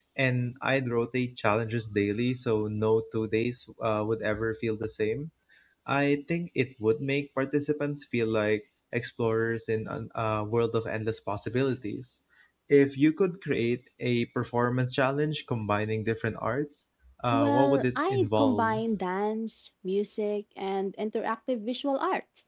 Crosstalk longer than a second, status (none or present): present